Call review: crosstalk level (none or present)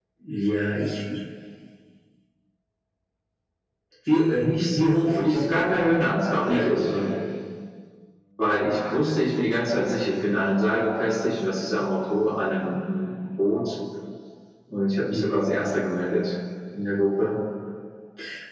present